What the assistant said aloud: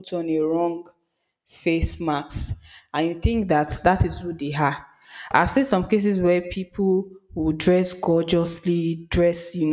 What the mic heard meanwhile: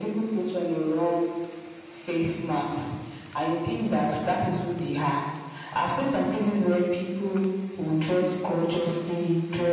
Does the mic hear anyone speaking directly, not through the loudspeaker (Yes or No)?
No